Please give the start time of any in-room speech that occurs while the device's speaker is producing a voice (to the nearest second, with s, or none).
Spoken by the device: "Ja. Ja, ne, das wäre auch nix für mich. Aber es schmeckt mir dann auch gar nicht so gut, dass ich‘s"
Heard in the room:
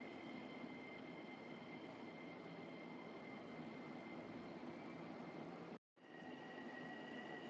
none